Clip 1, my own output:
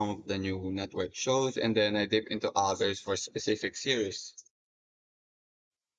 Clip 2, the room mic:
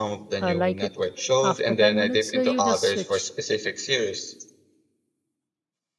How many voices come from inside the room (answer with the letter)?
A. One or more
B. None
A